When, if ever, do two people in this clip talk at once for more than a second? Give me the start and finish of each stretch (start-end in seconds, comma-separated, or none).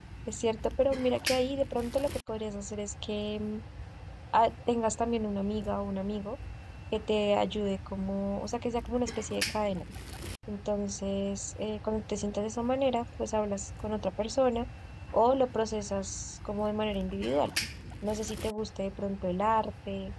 none